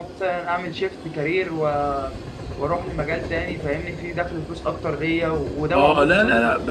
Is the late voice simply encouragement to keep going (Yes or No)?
No